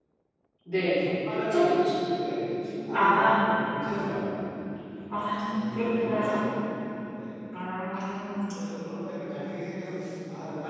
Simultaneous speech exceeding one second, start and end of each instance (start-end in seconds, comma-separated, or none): 5.1-6.4